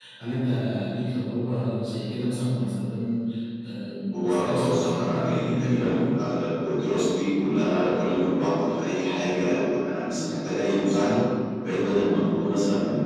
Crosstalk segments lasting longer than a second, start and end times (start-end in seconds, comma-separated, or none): 4.1-6.0